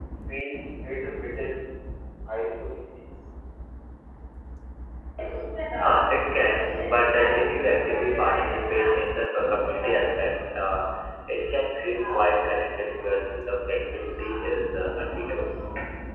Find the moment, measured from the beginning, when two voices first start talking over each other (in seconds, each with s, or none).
none